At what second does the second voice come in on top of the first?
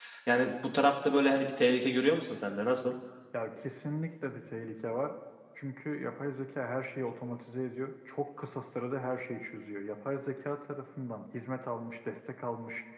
none

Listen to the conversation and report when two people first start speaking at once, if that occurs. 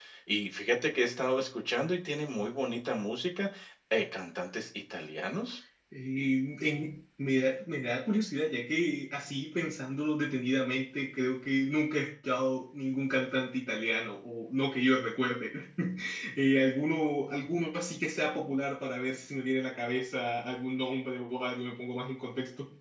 none

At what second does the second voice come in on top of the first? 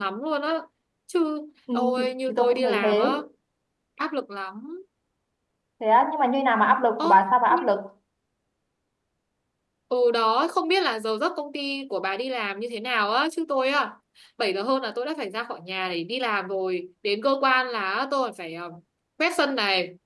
1.8 s

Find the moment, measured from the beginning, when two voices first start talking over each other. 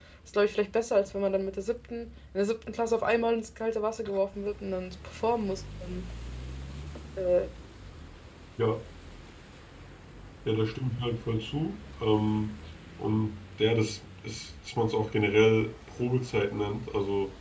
none

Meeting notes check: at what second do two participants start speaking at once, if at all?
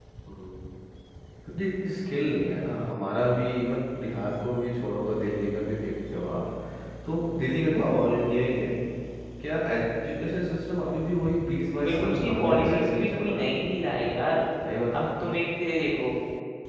11.8 s

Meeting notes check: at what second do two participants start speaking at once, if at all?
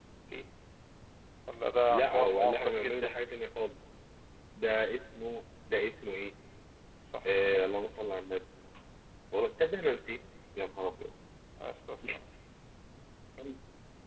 1.9 s

